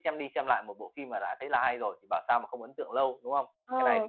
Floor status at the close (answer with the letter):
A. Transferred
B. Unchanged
A